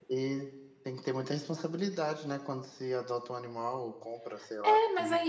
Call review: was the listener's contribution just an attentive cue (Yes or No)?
No